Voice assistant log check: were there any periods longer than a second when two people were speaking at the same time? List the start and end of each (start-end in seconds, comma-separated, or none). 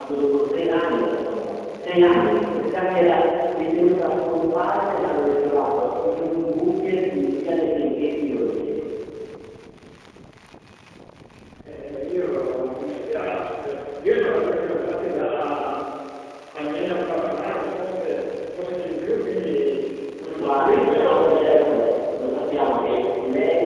20.4-21.9